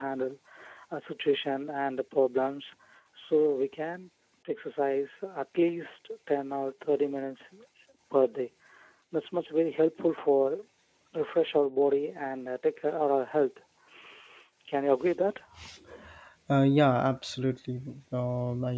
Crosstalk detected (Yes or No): No